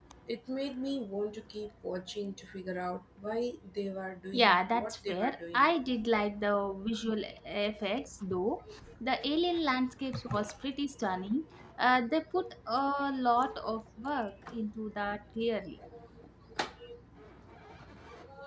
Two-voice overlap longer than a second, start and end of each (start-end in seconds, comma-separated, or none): 4.3-5.7